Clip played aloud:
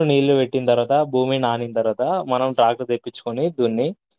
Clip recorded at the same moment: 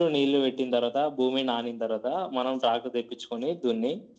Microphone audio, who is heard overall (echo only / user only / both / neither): echo only